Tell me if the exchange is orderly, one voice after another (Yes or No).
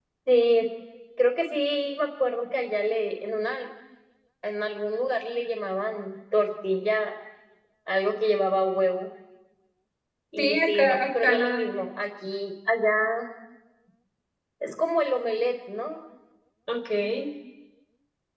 No